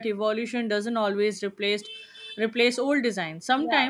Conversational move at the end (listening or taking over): listening